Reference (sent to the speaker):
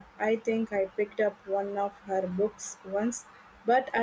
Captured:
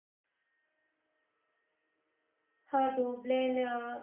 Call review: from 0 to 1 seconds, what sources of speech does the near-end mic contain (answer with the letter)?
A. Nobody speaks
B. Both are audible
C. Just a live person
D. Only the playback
A